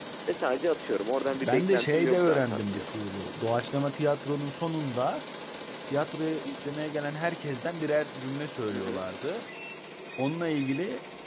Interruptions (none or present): present